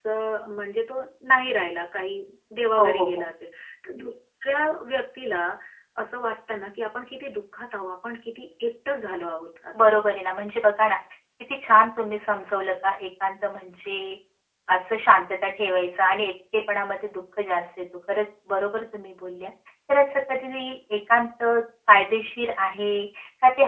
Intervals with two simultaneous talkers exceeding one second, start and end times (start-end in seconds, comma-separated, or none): none